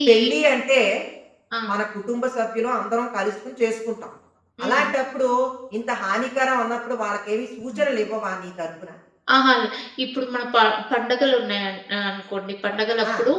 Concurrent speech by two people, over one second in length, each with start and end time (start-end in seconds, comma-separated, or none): none